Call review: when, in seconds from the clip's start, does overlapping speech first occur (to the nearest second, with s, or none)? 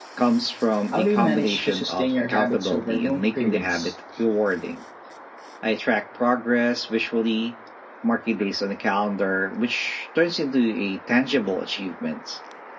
1 s